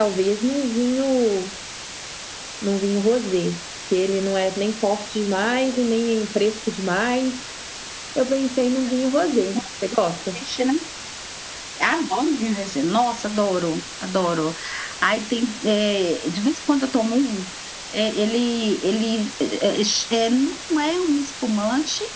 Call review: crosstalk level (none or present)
none